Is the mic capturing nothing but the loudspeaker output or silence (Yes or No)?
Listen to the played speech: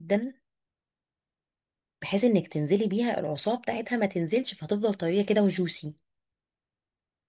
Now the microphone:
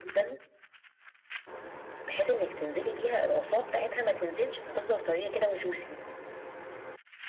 Yes